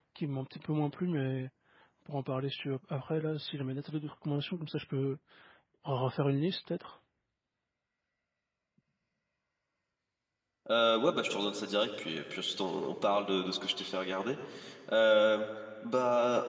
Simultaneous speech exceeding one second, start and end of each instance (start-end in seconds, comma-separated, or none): none